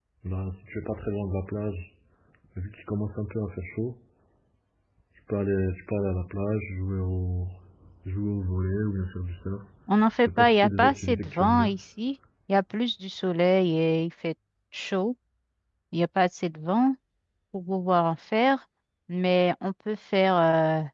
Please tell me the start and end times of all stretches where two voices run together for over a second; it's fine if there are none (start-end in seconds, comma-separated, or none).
10.2-11.7